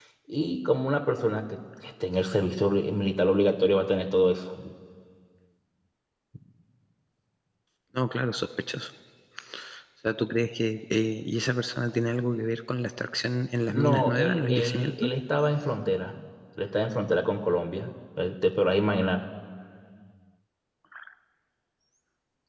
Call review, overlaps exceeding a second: present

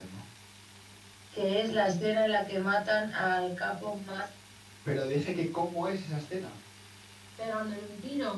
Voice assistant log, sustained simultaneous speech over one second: none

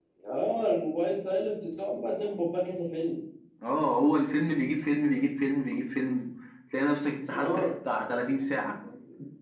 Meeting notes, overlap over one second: none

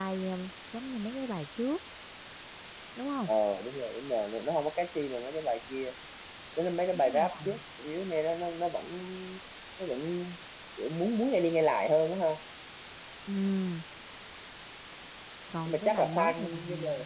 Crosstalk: present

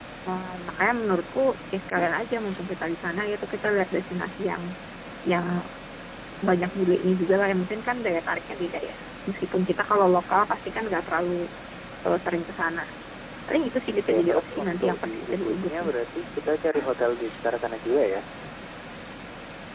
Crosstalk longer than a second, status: present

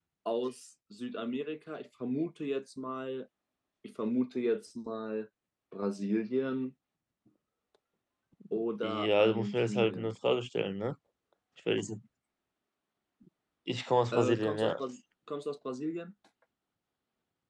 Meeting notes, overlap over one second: present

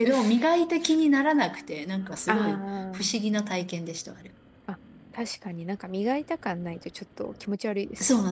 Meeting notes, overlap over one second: none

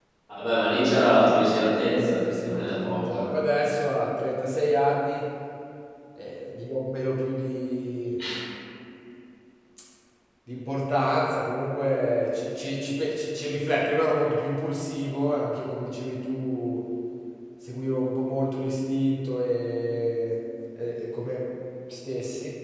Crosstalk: present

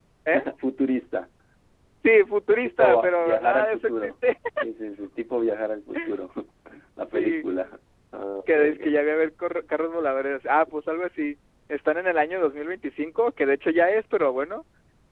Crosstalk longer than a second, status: present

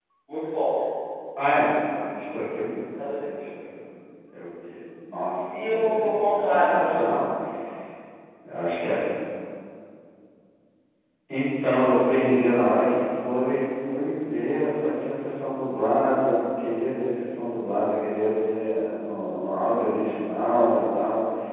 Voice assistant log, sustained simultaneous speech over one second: present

